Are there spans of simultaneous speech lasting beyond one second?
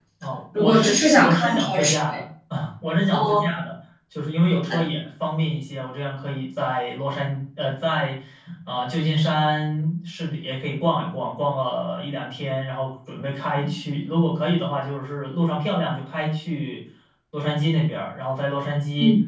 Yes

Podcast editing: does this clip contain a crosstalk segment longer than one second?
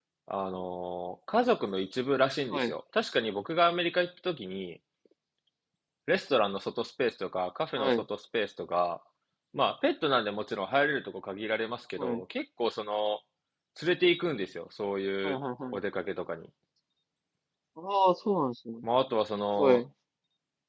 No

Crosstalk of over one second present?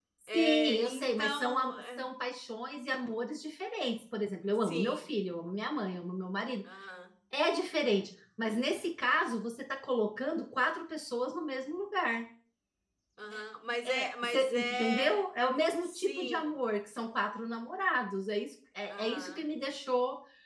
Yes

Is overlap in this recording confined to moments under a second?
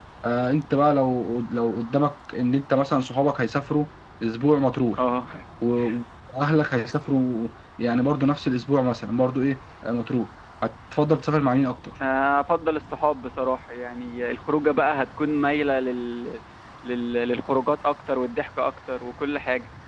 Yes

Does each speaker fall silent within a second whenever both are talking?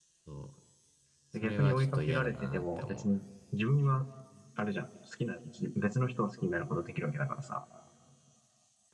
No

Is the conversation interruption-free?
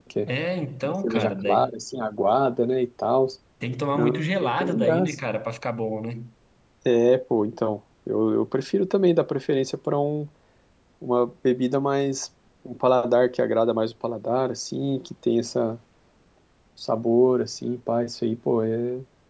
No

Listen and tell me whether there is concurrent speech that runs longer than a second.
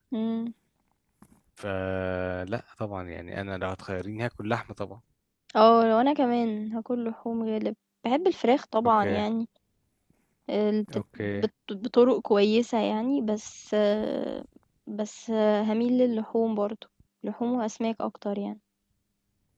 No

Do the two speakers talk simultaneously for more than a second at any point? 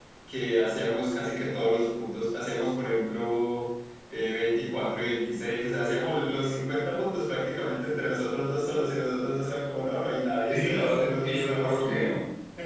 Yes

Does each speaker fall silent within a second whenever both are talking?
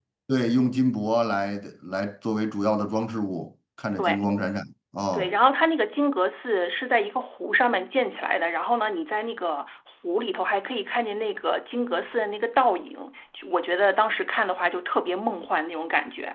Yes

